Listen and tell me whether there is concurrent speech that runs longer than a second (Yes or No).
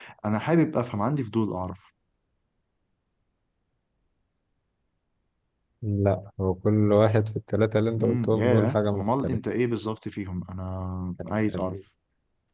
Yes